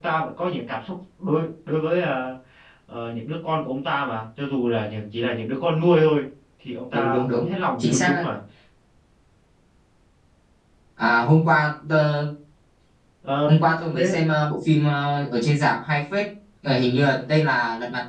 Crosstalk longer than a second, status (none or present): present